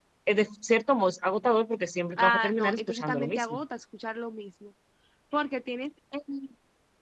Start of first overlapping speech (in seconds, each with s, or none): 2.2 s